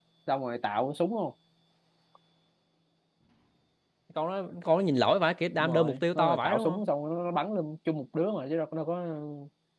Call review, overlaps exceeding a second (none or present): present